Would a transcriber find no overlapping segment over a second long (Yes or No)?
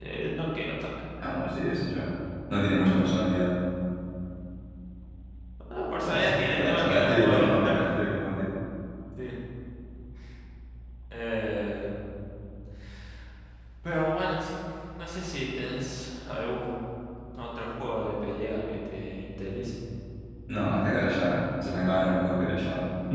No